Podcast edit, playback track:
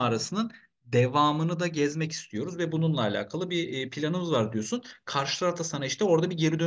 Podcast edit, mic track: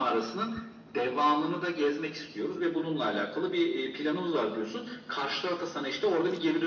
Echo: present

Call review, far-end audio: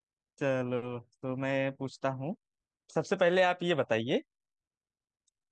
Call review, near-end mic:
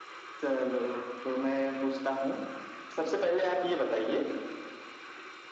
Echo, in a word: present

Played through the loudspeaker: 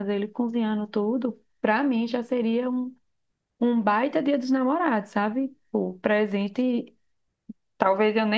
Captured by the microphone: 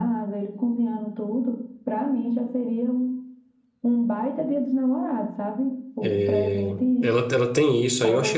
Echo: present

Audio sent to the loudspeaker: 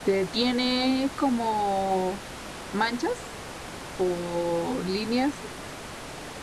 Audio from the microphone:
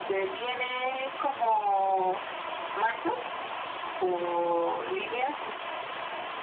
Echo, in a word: present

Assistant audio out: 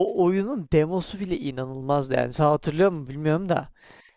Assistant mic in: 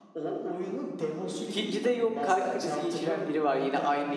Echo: present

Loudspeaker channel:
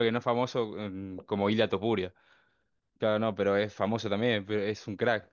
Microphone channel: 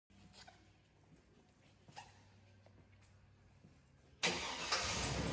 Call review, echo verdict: none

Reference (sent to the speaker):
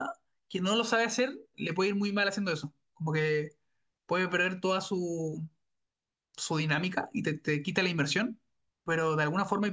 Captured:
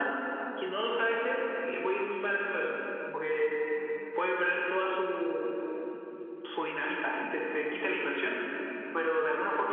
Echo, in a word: present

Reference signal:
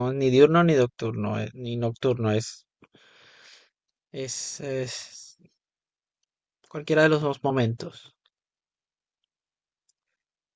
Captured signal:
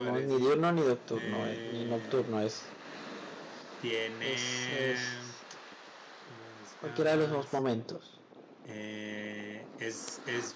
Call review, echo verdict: present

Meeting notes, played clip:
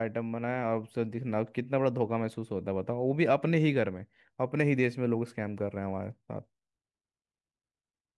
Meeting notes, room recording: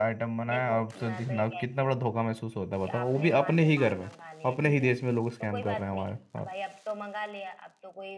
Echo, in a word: present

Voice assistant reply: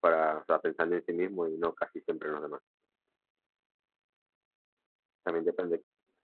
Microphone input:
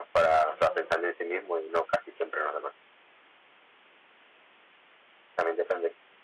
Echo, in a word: present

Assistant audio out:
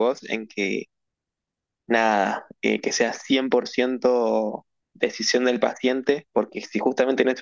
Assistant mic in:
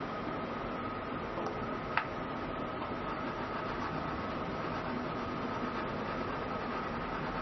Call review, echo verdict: none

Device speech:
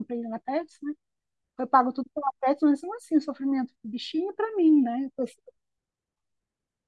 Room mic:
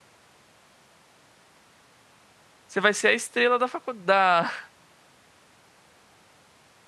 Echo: none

